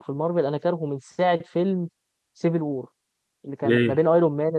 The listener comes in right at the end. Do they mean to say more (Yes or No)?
No